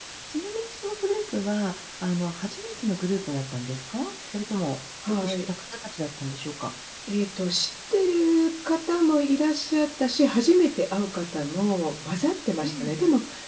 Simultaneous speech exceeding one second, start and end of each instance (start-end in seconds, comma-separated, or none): none